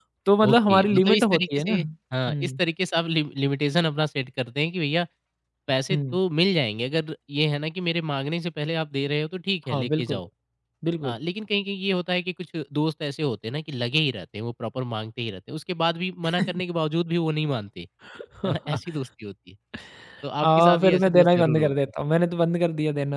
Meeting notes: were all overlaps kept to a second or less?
No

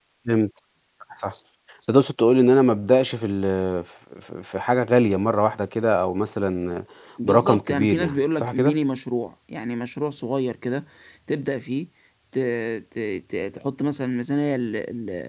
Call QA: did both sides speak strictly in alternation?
No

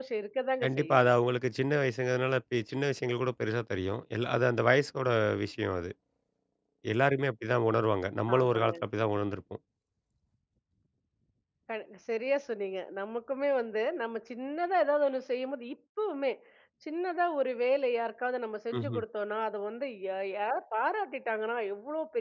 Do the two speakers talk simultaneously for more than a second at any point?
No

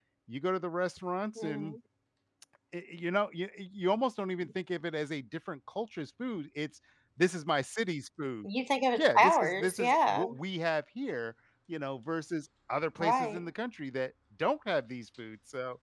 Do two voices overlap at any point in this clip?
Yes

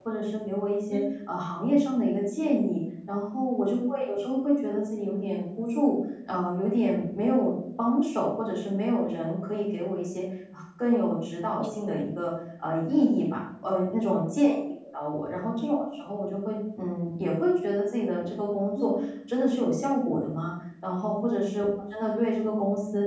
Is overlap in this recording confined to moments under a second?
Yes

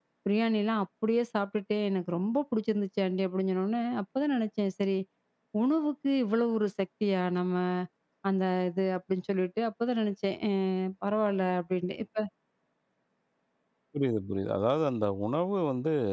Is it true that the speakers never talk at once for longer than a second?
Yes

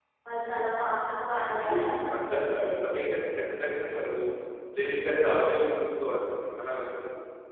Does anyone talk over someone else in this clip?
Yes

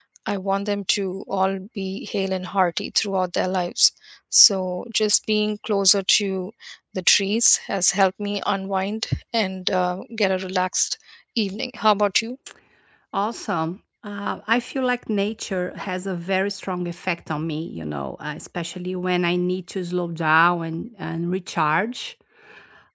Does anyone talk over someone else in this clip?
No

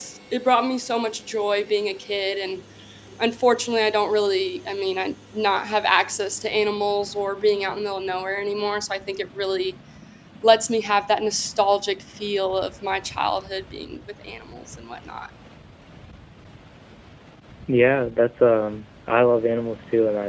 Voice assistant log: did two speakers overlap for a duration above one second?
No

